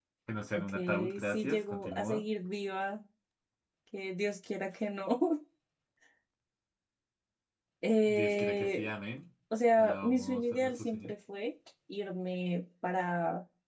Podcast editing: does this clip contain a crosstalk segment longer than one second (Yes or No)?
Yes